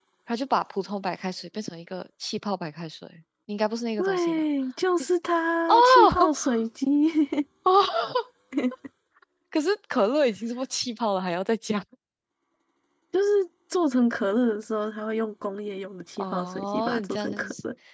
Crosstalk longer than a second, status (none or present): present